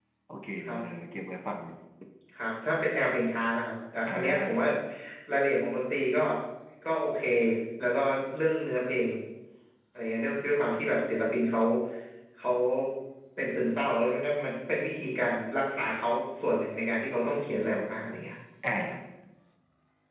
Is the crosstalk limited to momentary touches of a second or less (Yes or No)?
Yes